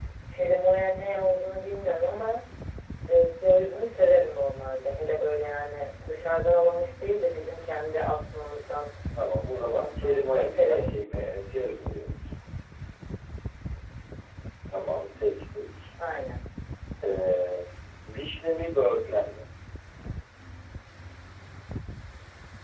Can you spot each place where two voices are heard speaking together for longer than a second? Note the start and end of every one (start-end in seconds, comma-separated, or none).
9.5-10.9